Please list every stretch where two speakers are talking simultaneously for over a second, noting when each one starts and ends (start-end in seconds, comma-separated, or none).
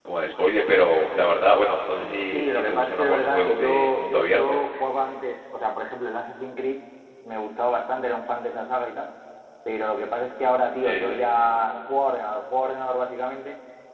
2.1-4.6